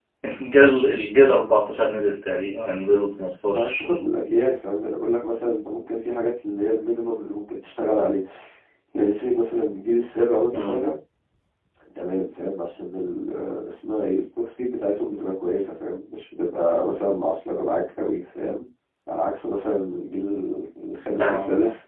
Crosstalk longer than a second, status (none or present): none